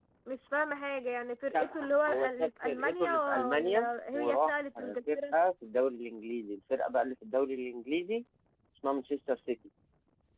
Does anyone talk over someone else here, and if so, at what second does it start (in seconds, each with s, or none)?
1.5 s